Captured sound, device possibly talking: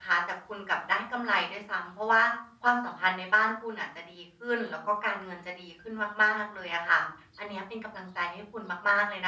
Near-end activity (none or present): present